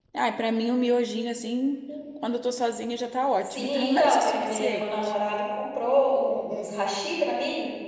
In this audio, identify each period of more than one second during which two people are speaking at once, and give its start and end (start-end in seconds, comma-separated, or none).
3.4-5.1